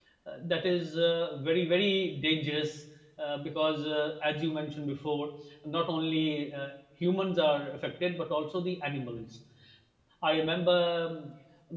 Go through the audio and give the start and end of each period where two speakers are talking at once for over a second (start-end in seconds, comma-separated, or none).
none